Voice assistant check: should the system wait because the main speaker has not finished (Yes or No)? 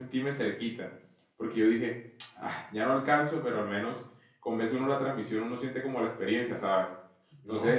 Yes